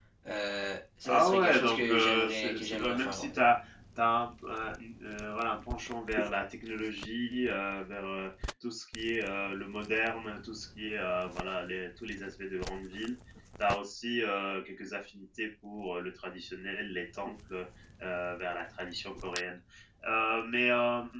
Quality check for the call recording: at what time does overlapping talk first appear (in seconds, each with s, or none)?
1.0 s